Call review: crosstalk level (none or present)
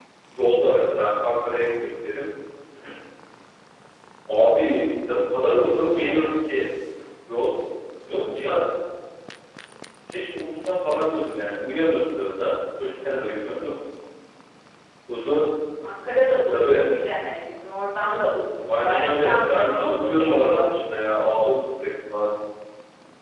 present